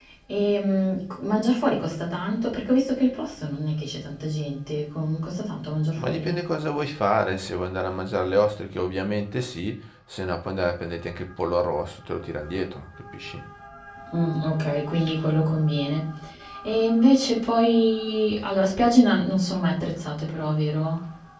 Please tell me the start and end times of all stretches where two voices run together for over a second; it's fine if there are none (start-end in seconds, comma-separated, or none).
none